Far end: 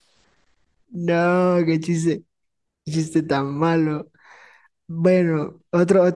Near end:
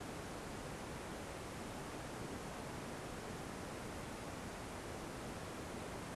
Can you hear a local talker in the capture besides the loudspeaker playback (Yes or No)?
No